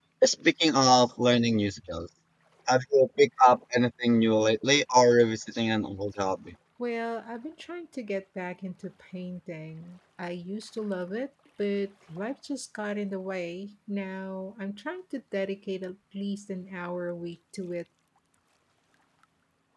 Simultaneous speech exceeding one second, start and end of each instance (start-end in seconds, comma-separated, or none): none